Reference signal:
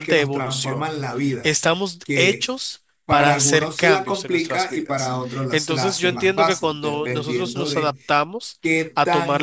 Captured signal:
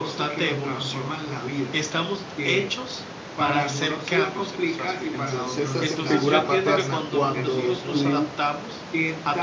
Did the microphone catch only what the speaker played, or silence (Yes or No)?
No